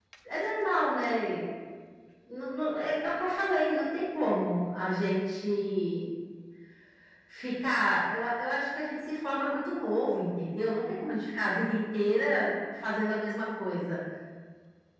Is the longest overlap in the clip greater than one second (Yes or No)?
No